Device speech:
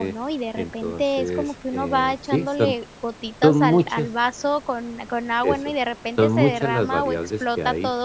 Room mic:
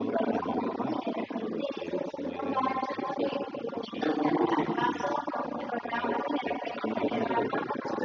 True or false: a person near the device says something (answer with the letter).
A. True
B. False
A